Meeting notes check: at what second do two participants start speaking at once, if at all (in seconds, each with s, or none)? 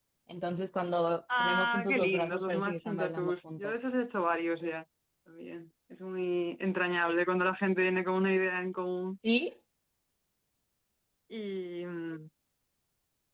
1.3 s